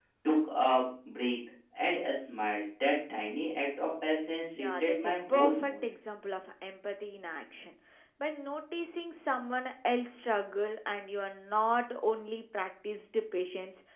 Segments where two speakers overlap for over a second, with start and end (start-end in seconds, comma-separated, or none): 4.6-5.8